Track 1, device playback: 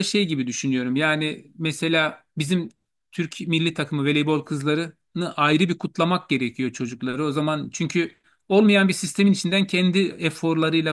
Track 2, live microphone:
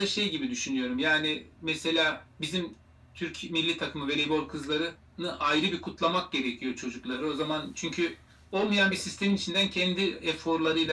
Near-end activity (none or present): none